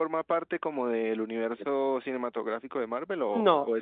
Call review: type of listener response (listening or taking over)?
taking over